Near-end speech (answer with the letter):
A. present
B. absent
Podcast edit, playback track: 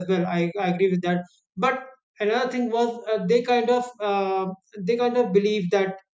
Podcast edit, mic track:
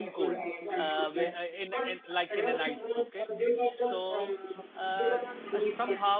A